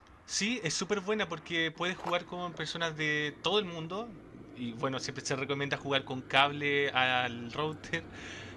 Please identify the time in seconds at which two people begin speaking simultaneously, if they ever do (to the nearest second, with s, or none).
none